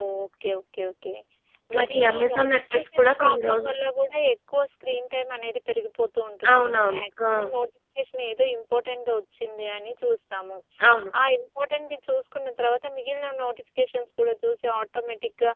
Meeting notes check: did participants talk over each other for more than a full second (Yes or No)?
Yes